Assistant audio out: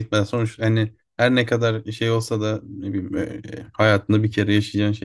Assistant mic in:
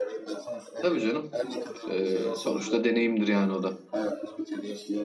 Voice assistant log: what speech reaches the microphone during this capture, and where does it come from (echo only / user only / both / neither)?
both